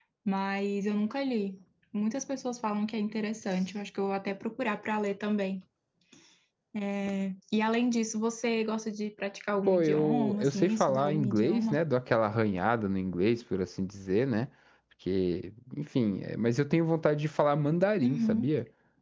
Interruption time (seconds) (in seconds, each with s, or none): 9.7 s